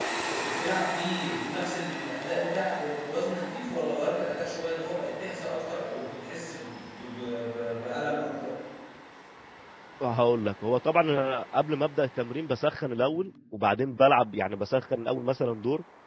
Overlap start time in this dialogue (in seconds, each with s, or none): none